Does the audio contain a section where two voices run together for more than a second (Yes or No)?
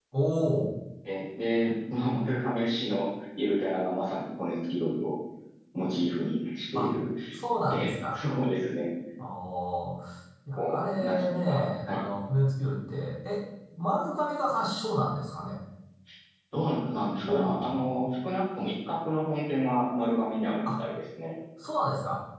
Yes